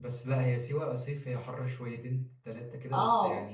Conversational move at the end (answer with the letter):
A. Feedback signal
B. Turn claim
B